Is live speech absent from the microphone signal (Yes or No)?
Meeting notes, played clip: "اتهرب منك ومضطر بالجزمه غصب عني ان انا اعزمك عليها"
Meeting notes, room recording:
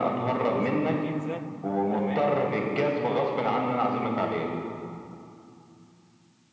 No